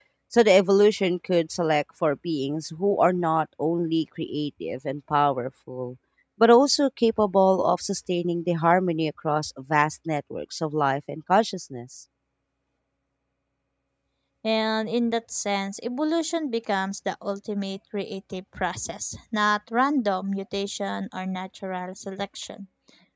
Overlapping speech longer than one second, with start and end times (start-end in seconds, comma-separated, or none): none